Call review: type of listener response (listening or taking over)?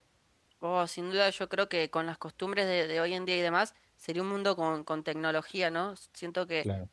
listening